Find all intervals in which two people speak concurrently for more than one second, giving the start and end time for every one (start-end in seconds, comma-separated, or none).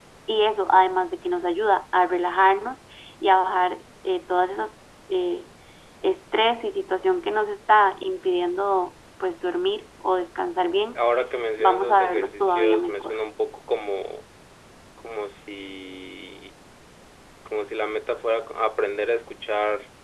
11.6-13.2